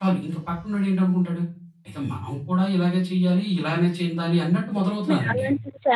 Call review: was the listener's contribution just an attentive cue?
No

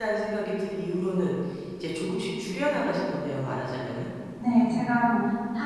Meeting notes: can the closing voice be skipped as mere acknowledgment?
No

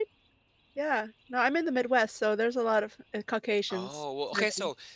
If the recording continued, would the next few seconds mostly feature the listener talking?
Yes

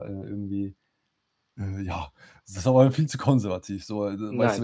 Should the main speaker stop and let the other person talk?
No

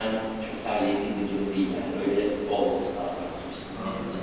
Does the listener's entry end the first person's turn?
Yes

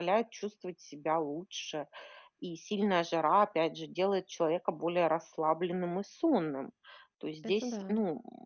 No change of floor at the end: Yes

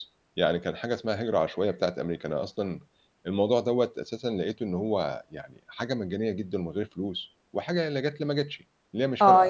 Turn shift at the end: Yes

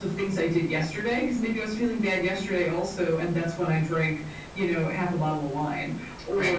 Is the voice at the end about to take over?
No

